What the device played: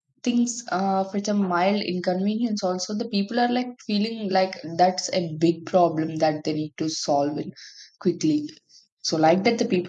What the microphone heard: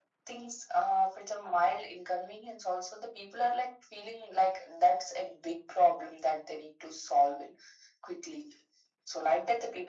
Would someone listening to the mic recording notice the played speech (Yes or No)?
Yes